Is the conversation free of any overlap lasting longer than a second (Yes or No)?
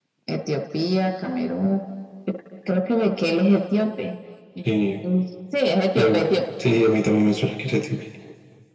Yes